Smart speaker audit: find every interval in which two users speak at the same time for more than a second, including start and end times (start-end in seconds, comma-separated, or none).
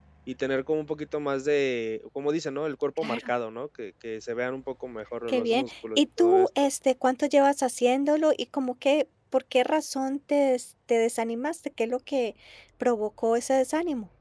5.3-6.5